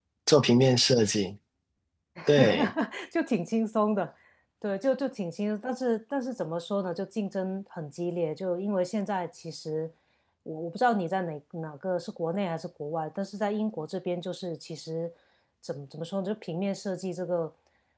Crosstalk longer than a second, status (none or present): none